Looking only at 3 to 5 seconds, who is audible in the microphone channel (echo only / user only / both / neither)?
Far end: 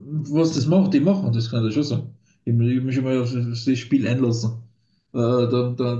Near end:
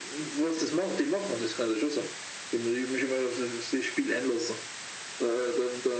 echo only